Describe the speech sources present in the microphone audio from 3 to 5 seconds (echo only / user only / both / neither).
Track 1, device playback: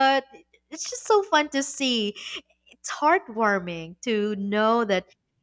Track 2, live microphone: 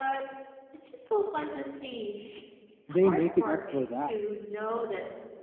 both